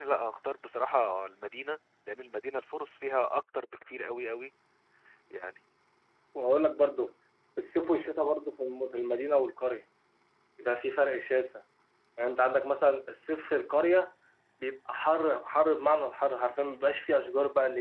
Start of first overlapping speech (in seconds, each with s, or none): none